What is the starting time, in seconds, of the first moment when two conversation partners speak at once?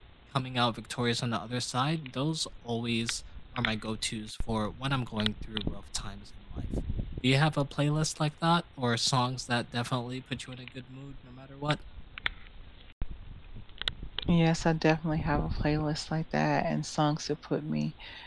none

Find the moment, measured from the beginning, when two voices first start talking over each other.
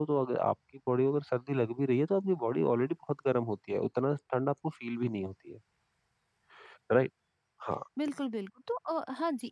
none

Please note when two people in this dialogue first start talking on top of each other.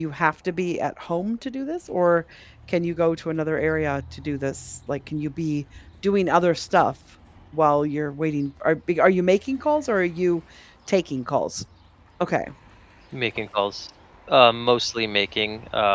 none

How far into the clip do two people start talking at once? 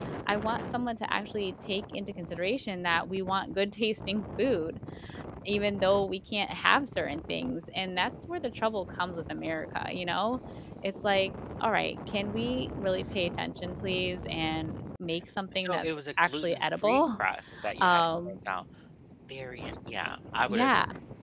15.6 s

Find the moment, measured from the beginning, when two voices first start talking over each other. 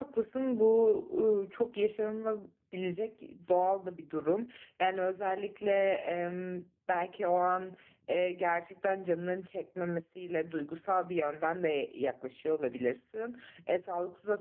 none

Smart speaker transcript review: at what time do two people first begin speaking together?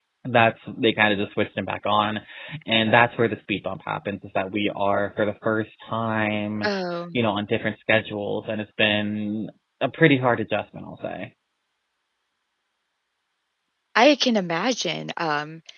none

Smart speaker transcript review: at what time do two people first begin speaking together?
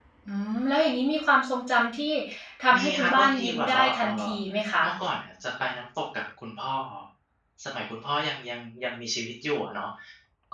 2.8 s

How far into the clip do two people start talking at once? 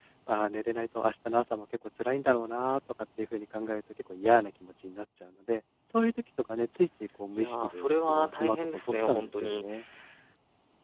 7.3 s

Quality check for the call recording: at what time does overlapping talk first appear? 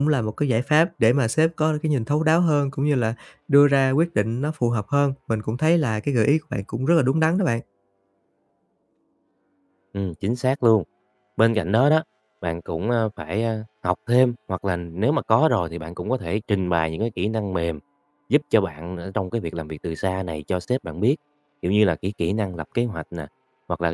none

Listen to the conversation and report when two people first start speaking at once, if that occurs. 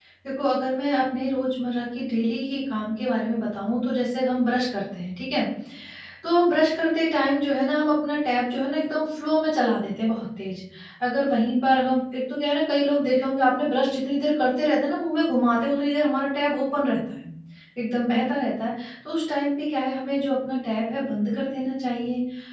none

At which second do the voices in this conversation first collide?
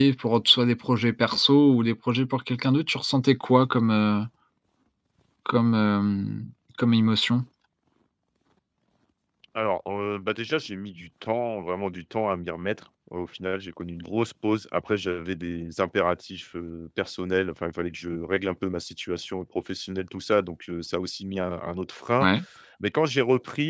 none

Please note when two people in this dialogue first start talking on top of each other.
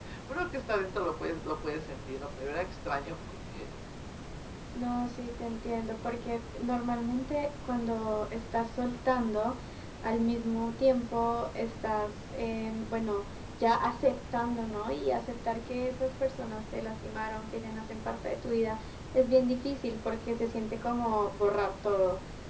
none

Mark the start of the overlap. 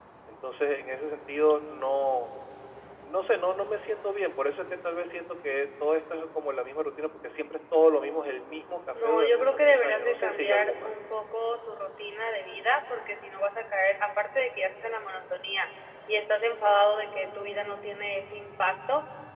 8.9 s

